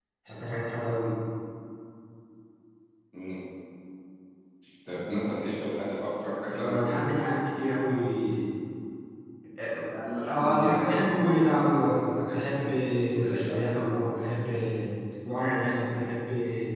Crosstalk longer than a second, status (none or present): present